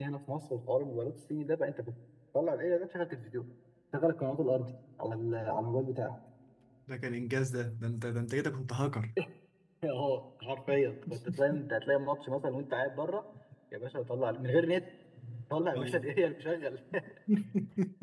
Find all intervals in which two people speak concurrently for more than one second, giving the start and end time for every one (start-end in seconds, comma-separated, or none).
none